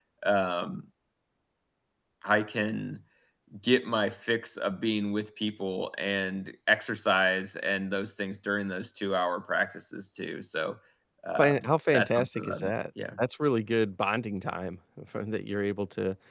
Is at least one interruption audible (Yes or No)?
Yes